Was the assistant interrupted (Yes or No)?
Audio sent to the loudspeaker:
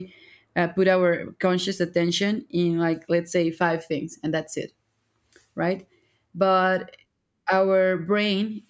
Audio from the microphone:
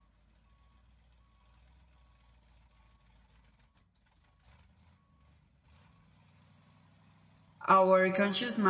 Yes